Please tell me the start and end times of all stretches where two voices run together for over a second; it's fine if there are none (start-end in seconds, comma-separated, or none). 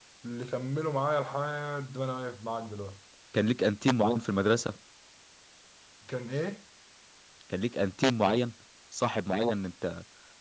none